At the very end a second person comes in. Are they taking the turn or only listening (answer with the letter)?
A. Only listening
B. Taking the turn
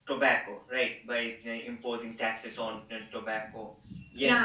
B